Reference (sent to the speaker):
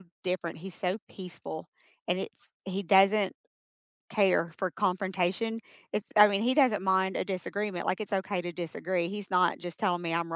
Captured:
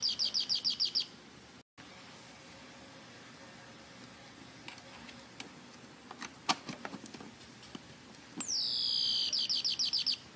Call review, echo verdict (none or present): none